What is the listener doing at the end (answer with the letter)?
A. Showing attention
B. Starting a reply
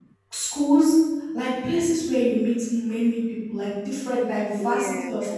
A